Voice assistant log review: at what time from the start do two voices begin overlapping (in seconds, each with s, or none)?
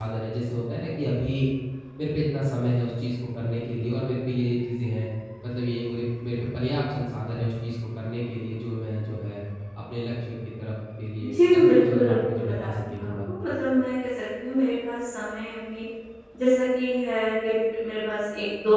11.2 s